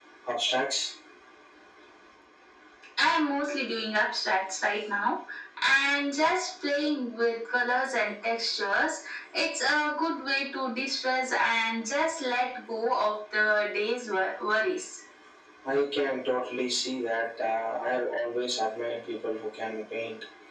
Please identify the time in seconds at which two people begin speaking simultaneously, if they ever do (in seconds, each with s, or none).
none